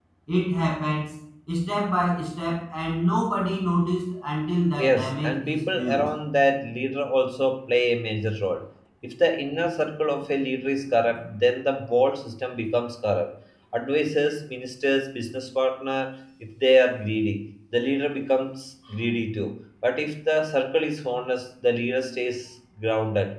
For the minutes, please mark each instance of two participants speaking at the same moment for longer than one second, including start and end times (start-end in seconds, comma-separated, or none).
4.8-6.0